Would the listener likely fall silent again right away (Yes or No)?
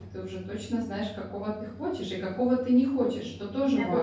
No